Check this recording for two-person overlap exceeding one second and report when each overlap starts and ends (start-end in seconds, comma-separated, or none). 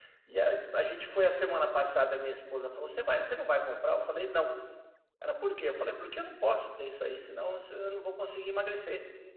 none